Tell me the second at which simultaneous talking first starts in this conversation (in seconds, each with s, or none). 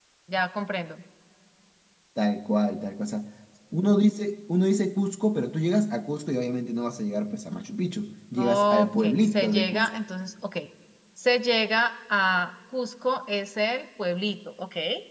8.4 s